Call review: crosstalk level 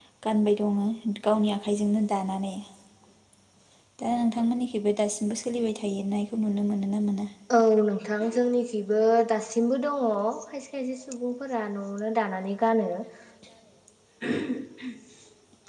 none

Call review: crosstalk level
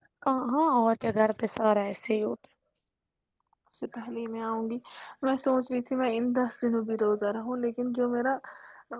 none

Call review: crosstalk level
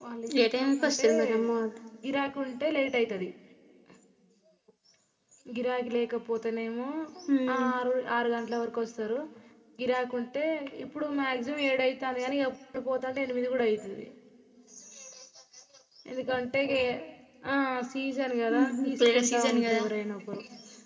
present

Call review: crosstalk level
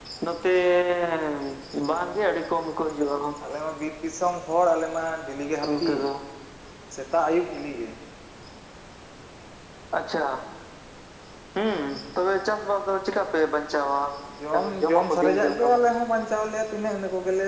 present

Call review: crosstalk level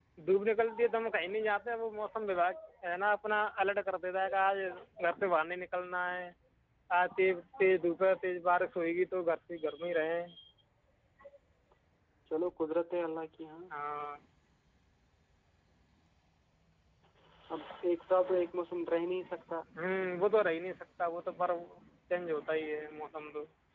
none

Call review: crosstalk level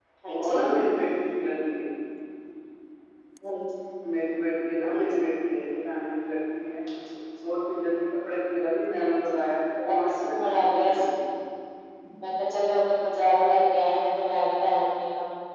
present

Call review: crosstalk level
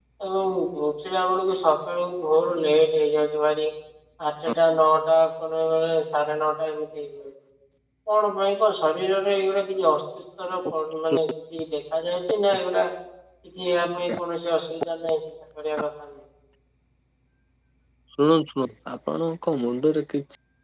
none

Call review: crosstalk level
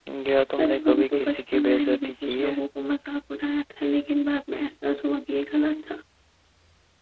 present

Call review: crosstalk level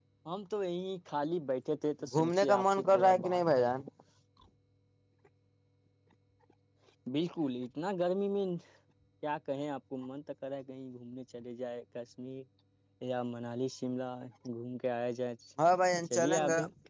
present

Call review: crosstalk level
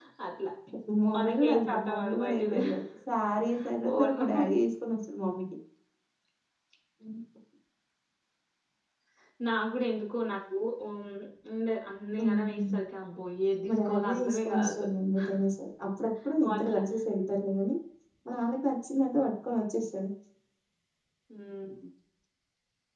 present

